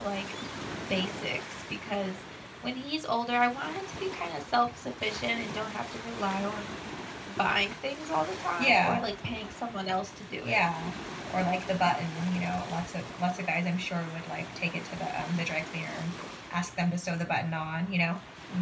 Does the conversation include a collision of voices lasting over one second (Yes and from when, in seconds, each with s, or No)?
No